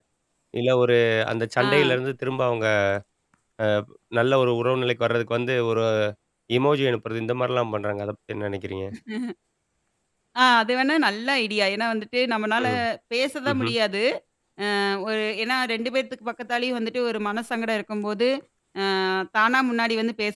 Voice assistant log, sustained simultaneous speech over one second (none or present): none